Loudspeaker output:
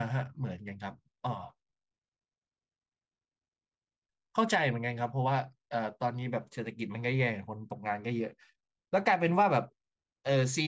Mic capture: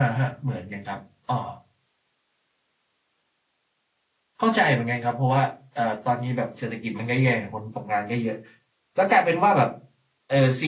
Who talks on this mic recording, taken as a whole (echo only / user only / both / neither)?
echo only